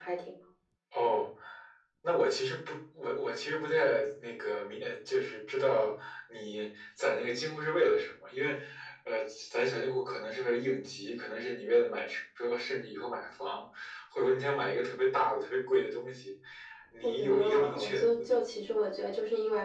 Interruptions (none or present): present